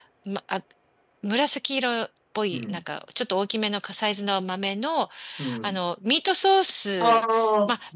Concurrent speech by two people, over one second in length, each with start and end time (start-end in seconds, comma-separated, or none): none